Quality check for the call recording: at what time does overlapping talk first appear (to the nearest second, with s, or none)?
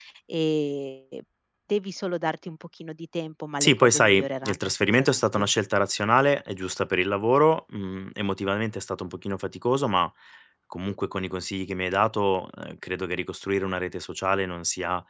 4 s